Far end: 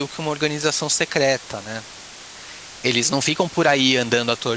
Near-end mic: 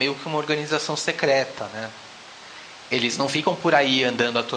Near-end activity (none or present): none